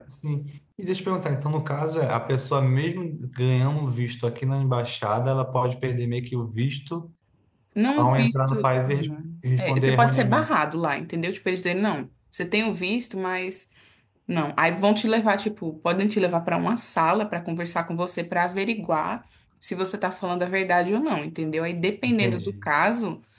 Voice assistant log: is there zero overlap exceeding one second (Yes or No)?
No